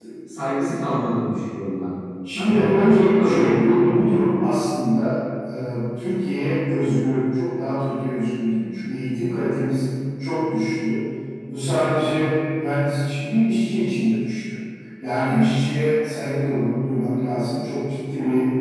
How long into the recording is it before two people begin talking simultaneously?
2.4 s

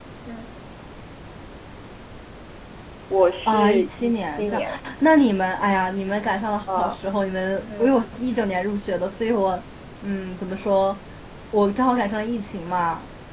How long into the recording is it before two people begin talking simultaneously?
3.5 s

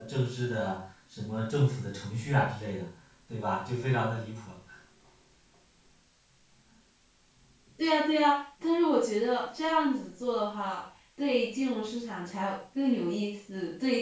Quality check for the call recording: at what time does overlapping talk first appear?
none

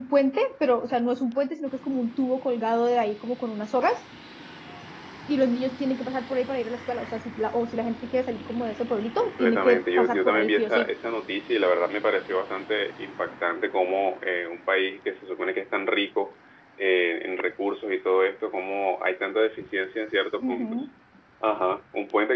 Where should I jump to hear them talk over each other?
9.2 s

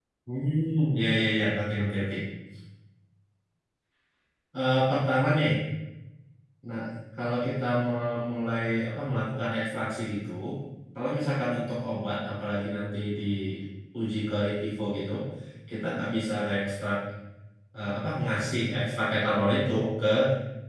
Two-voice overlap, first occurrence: none

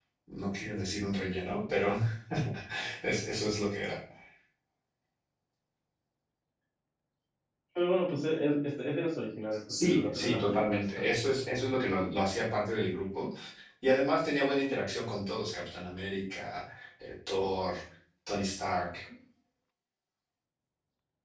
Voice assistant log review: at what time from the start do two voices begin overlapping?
9.7 s

